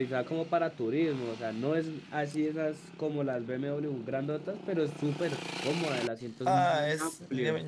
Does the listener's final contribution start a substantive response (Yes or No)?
Yes